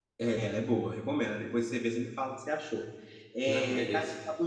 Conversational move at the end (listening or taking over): listening